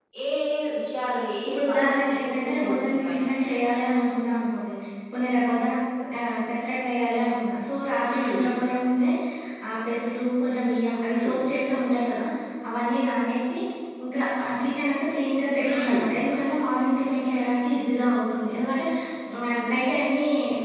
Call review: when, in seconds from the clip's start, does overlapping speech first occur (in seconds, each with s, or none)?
1.5 s